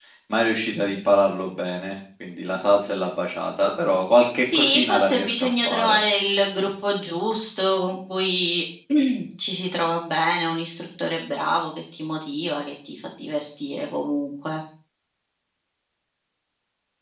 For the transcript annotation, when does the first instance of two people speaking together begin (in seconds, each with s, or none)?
4.5 s